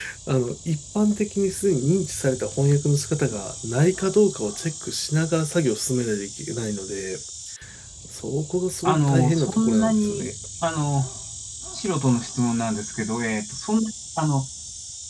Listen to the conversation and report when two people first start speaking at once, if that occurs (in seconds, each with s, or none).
8.8 s